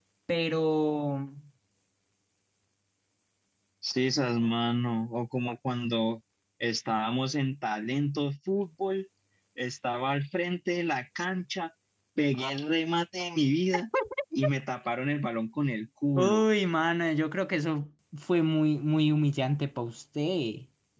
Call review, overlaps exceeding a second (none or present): none